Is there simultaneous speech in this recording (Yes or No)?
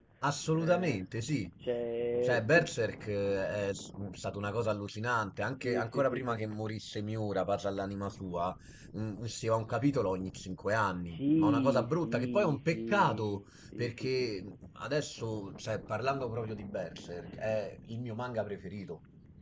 Yes